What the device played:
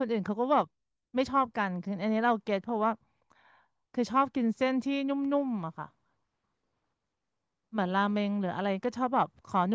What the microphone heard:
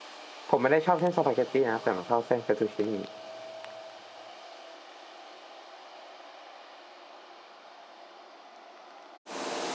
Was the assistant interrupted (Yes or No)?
Yes